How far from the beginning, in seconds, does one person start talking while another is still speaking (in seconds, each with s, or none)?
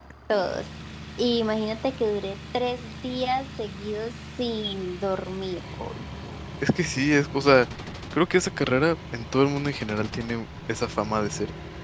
none